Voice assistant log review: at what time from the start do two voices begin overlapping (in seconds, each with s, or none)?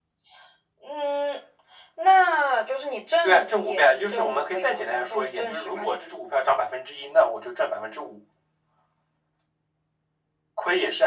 3.2 s